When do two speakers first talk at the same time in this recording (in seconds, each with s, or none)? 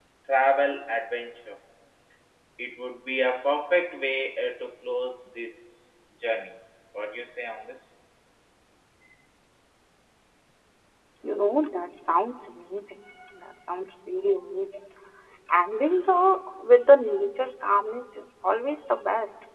none